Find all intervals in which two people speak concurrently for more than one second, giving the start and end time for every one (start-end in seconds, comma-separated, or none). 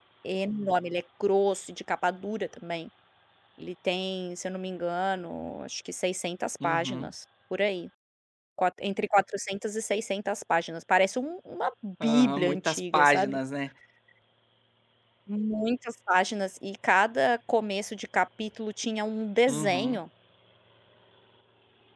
12.0-13.4